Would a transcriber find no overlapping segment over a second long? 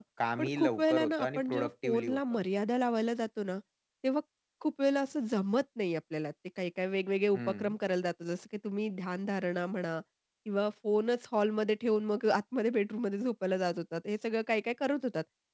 No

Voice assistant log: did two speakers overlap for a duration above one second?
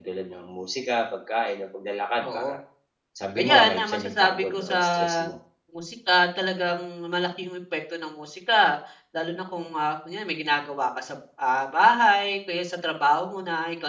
Yes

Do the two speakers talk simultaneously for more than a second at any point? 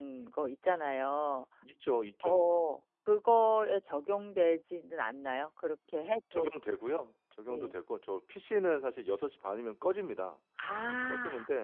No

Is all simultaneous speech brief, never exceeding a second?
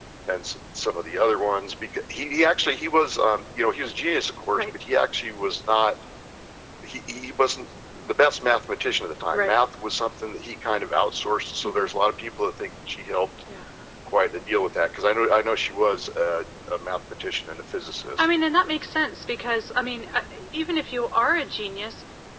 Yes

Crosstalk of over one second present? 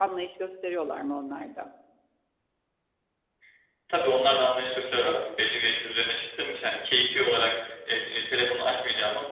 No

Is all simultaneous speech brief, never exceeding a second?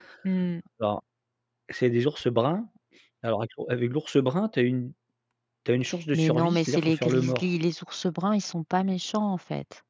No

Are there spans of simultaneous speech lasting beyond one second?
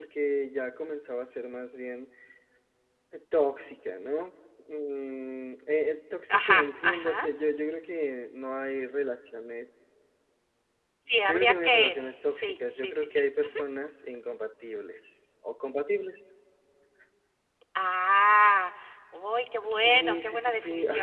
Yes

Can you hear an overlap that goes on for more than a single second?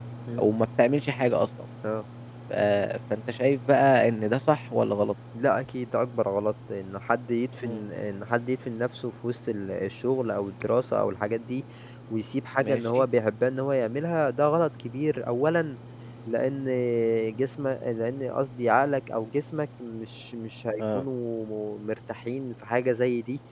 No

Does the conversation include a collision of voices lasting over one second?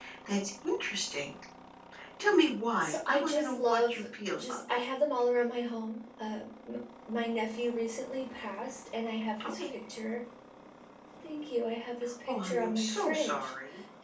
Yes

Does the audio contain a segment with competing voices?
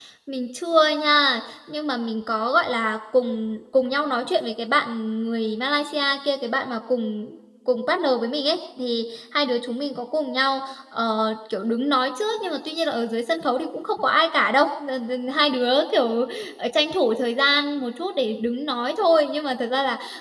No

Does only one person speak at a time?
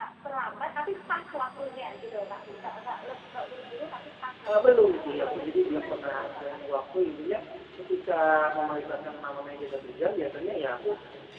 No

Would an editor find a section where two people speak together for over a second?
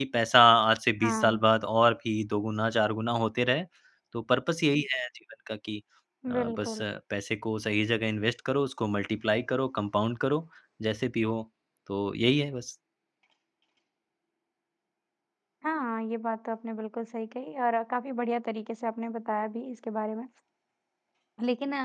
No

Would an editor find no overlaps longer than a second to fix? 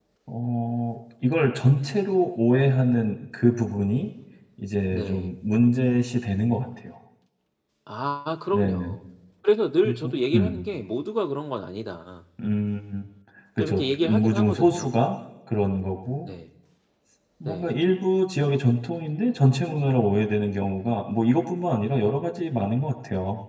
No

